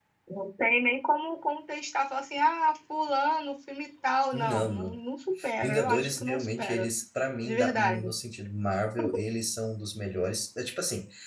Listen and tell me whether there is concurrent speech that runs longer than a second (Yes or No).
Yes